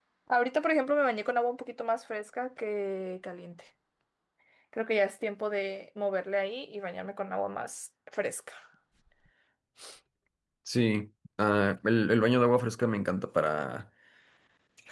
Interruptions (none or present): none